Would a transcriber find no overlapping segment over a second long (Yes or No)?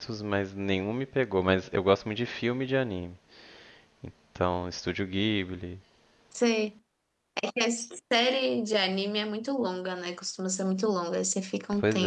Yes